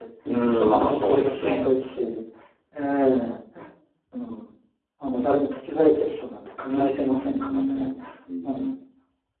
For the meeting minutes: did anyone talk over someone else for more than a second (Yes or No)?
Yes